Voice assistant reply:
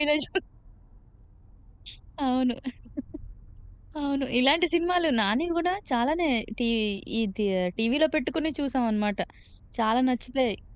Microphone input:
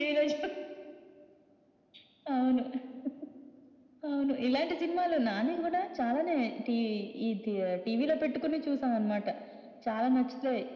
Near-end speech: none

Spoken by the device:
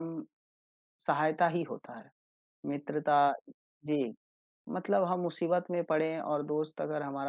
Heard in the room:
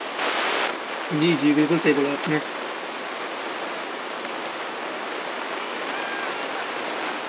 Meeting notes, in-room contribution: present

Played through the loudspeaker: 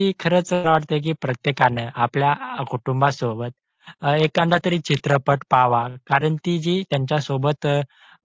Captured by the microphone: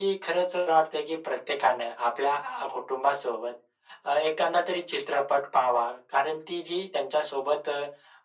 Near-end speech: none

